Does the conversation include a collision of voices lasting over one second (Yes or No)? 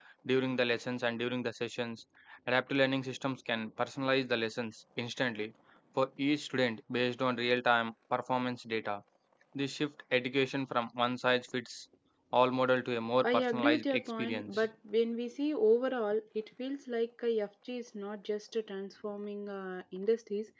Yes